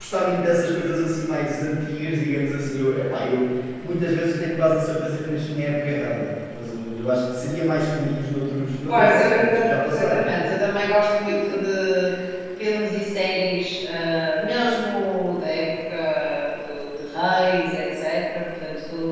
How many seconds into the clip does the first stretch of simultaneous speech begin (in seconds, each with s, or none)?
8.9 s